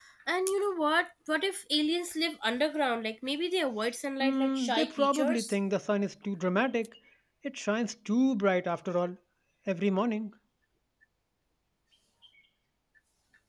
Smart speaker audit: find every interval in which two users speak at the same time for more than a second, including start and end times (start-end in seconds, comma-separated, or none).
4.2-5.5